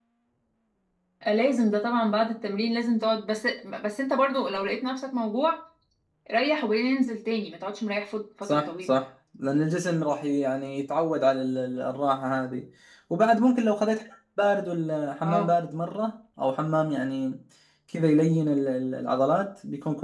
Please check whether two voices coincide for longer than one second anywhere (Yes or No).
No